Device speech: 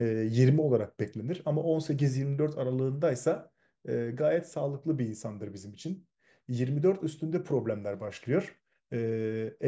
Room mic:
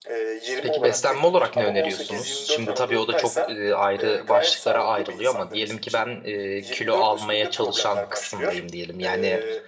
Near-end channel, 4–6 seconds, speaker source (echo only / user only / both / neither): both